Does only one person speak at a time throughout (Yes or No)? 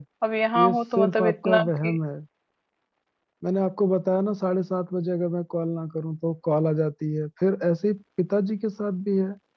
No